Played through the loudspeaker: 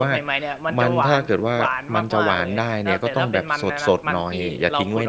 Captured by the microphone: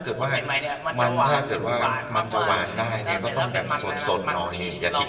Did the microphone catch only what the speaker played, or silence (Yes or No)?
Yes